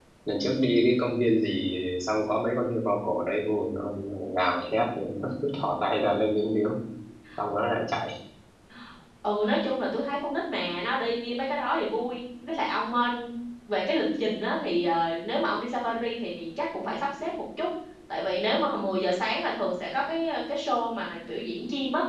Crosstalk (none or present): none